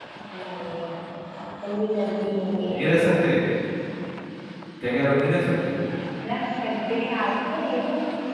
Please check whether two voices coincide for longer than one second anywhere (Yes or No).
No